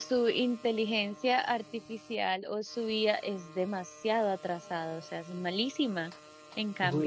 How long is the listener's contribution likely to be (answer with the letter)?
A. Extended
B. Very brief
B